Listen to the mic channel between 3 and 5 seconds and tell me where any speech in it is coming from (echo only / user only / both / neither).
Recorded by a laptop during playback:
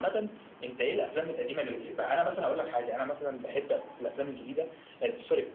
echo only